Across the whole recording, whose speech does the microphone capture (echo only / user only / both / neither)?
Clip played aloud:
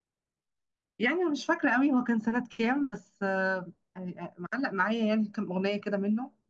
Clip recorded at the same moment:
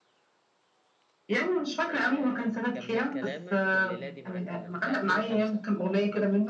both